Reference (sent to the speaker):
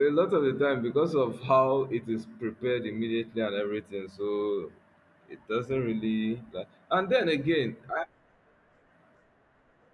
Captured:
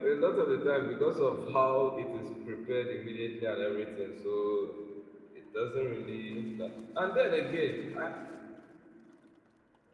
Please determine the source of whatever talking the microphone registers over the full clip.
echo only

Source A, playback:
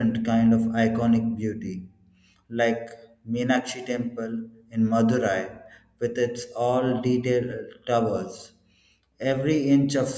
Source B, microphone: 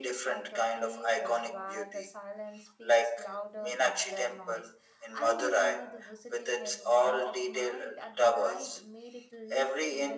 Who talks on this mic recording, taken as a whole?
both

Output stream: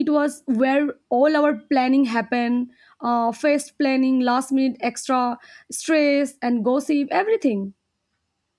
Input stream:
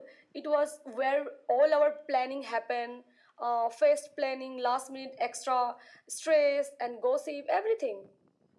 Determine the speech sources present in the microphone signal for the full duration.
echo only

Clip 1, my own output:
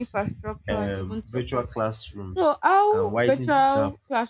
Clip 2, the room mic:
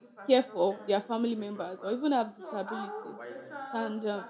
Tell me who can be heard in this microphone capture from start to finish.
both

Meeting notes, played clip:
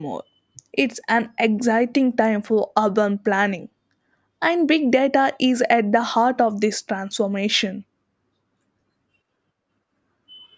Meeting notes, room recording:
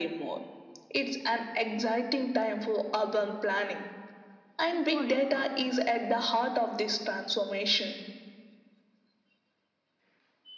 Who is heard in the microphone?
both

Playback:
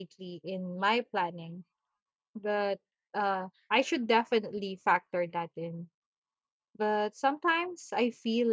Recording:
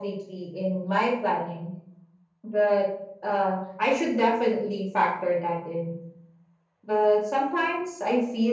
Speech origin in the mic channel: echo only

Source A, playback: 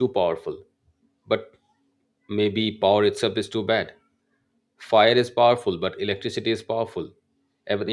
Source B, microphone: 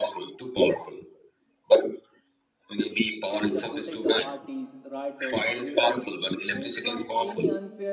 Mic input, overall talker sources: both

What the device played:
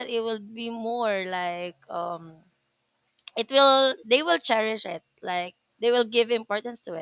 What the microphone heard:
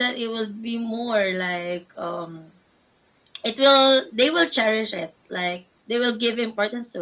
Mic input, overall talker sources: echo only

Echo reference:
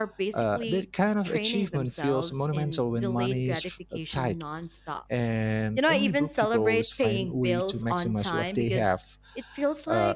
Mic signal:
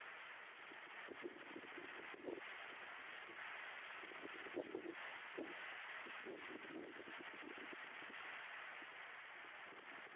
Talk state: neither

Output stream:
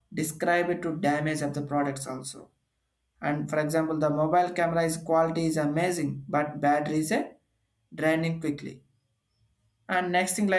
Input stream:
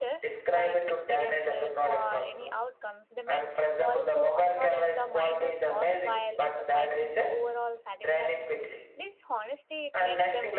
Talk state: both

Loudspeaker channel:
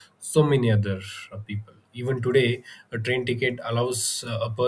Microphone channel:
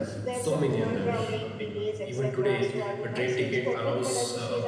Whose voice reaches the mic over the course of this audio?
both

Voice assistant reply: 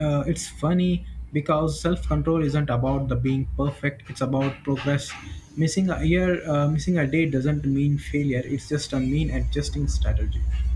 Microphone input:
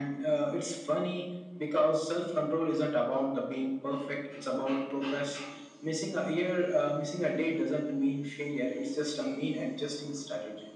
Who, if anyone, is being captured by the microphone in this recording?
echo only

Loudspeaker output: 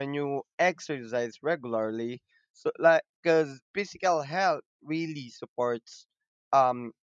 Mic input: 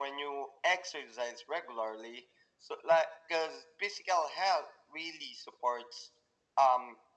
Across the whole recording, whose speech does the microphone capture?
echo only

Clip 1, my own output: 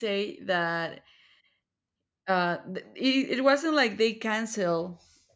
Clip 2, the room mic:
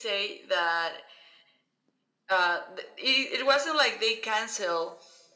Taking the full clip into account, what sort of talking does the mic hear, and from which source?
echo only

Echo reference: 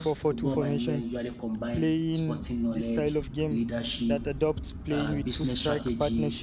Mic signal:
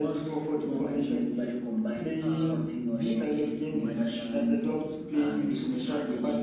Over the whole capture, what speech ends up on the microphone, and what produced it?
both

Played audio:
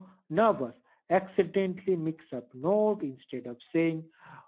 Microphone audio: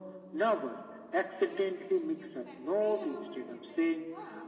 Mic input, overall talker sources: both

